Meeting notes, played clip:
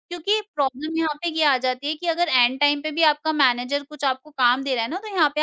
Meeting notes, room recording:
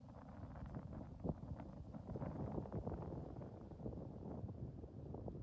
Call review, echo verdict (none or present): none